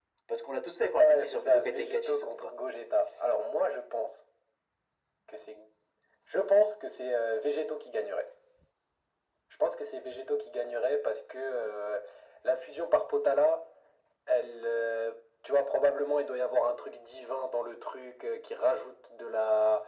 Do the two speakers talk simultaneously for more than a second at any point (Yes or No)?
Yes